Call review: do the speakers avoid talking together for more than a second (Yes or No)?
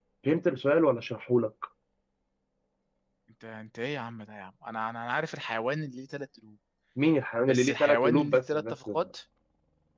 No